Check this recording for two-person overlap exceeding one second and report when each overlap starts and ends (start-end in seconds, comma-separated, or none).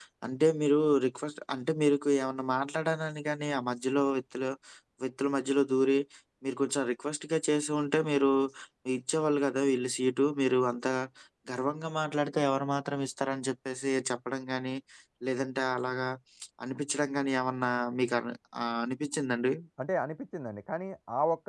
none